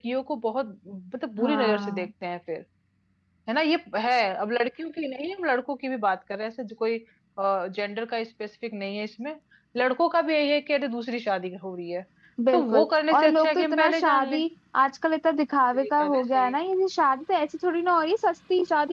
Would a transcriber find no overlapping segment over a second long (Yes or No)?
No